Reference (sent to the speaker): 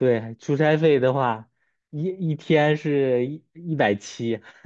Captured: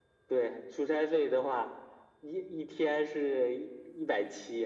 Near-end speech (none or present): none